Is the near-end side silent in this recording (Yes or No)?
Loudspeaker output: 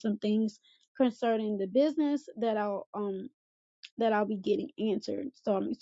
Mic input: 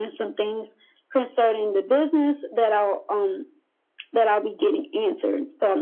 Yes